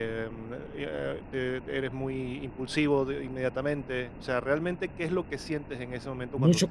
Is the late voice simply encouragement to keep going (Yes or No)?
No